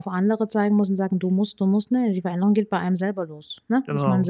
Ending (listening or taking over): listening